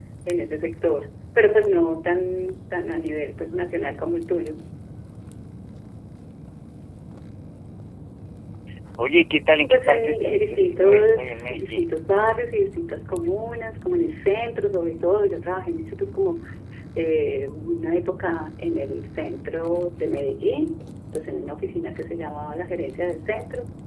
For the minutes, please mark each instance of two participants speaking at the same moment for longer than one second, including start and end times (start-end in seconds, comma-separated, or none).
9.7-11.9